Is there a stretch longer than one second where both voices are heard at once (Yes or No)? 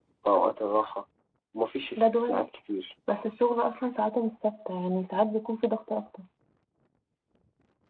No